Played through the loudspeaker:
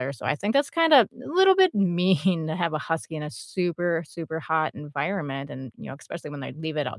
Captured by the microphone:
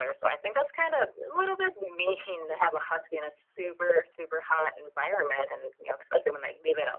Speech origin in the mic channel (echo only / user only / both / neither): echo only